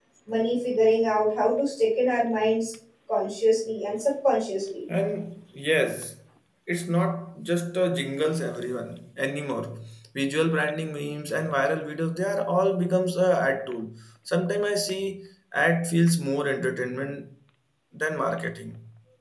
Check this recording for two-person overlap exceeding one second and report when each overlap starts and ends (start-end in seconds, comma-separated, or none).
none